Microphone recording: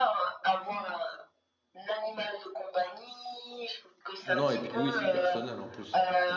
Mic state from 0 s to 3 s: echo only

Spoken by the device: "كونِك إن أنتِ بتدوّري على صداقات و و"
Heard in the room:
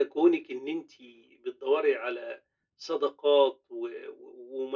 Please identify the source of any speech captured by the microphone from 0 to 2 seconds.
echo only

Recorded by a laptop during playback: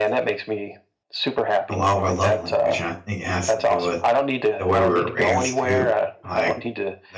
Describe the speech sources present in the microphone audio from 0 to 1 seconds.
echo only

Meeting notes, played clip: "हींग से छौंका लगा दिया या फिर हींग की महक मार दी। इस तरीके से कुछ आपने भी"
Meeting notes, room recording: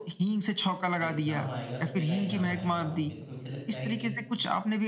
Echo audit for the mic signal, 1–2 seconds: both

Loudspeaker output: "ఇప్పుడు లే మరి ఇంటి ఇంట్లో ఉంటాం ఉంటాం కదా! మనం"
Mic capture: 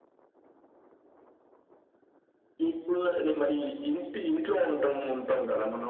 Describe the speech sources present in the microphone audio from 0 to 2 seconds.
neither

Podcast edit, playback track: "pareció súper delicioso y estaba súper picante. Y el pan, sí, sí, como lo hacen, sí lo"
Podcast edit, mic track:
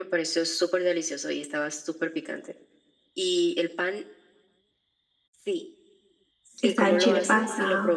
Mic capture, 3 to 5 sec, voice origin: echo only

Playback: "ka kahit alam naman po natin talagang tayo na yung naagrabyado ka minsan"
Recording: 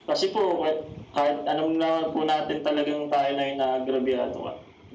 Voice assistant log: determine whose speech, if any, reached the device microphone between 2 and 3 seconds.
echo only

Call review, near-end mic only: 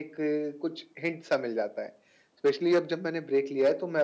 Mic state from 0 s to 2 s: echo only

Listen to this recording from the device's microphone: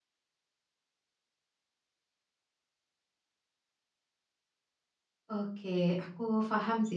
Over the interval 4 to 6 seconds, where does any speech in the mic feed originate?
user only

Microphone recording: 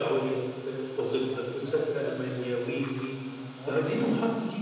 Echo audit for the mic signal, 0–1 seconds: echo only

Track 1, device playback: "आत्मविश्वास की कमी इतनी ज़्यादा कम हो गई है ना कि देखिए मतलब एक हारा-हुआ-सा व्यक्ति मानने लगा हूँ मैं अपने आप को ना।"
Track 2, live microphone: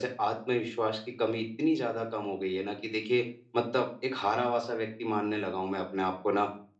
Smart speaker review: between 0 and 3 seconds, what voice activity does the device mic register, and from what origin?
echo only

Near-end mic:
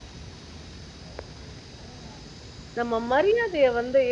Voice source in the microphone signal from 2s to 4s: user only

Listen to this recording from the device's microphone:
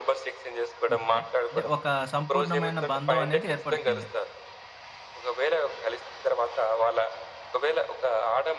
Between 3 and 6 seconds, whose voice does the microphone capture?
both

